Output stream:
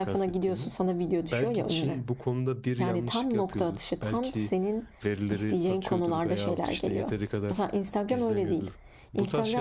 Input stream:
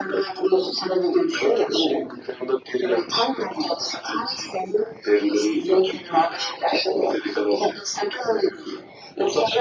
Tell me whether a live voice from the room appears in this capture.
No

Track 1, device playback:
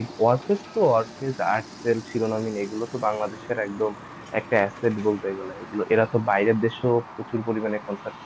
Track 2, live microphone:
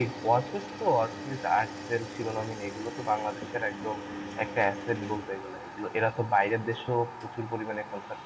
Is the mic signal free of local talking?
Yes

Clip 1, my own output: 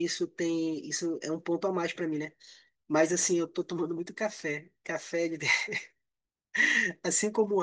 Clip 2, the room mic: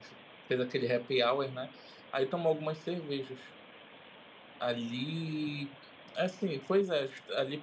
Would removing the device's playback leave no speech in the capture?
No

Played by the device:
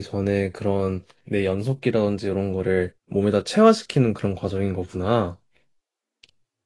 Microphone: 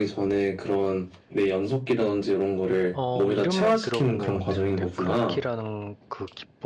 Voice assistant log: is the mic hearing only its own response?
No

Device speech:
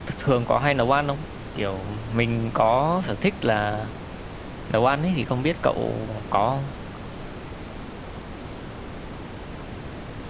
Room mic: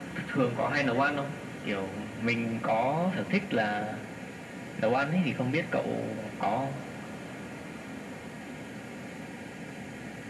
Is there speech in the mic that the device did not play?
No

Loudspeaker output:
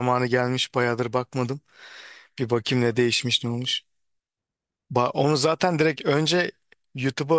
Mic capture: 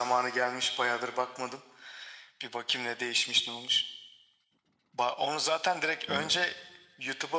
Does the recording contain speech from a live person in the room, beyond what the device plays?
Yes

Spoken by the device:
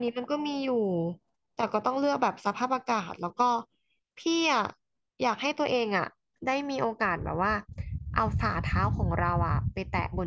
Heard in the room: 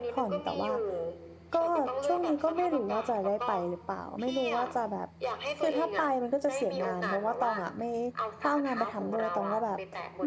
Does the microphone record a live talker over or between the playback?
Yes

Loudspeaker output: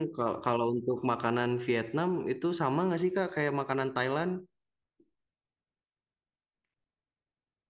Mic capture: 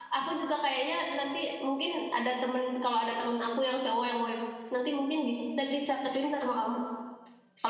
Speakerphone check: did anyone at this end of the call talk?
Yes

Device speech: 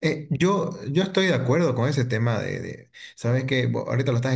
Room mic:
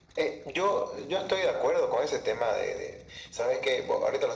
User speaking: No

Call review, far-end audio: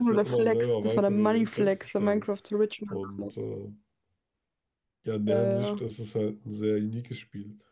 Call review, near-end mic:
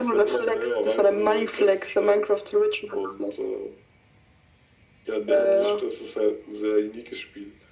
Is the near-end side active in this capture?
No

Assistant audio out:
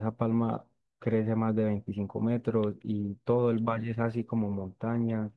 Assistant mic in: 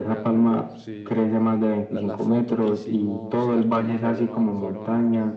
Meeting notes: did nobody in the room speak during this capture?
No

